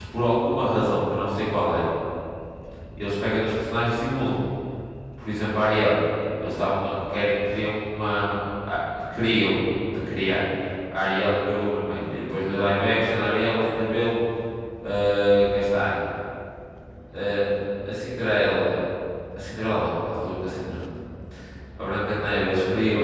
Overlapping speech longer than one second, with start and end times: none

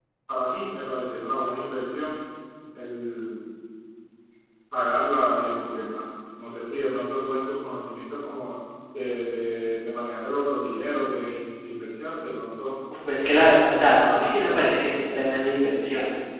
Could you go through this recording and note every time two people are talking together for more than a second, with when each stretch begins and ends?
13.3-15.1

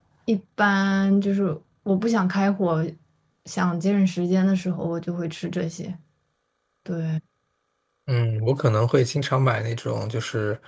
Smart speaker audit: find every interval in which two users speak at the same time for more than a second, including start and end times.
none

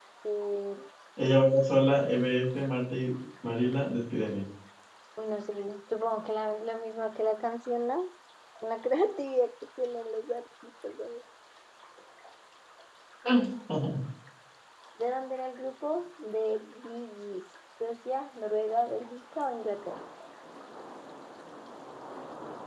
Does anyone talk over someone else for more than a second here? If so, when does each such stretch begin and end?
none

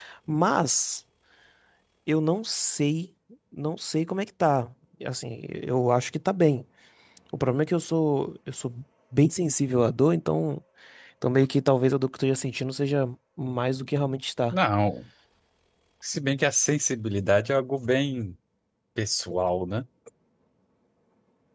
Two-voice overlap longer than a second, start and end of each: none

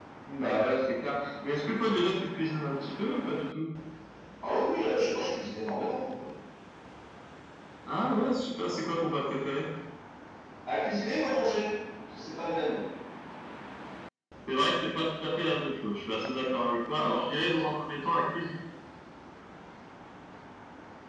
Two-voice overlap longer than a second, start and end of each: none

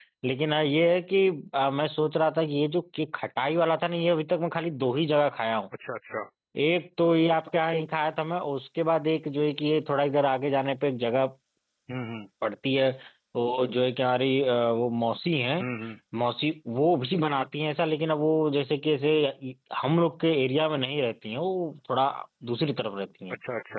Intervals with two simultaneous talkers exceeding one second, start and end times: none

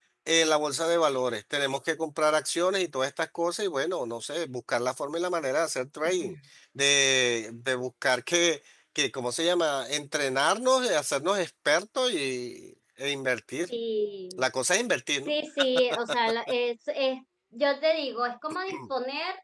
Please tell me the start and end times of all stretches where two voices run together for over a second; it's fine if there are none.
none

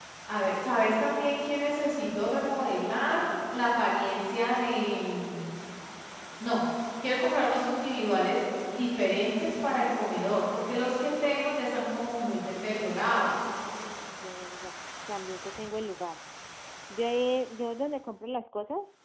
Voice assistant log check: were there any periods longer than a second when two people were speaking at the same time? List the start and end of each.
none

